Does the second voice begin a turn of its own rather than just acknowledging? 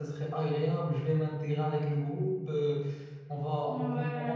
No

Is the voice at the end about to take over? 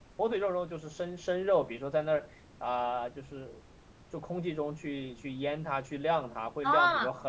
Yes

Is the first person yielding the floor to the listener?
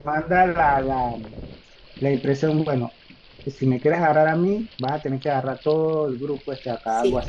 Yes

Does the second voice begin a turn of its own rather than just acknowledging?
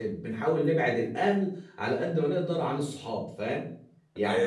Yes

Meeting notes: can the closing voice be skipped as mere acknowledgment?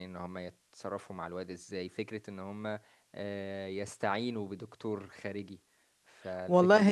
No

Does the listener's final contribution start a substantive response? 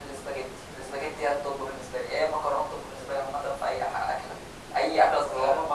No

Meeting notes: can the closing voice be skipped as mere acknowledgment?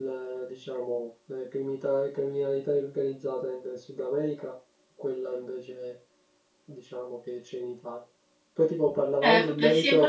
No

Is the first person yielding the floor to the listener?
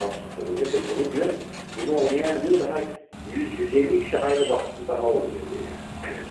Yes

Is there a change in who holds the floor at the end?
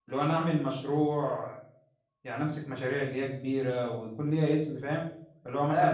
Yes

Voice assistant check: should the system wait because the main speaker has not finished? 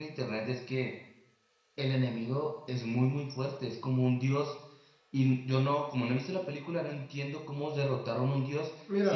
Yes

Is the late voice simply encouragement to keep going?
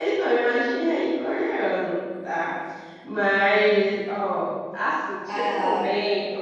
Yes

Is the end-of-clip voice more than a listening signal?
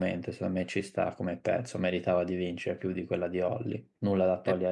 Yes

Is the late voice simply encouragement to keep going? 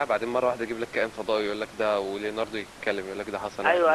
No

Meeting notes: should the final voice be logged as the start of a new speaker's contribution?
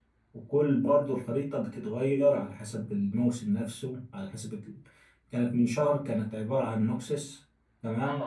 Yes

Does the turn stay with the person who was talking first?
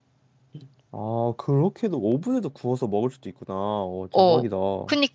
No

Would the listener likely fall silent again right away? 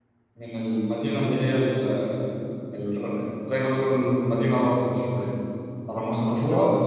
Yes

